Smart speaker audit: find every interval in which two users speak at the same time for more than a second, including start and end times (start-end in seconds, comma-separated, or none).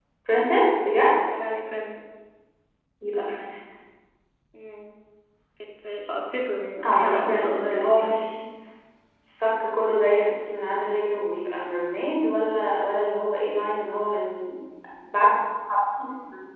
6.8-8.2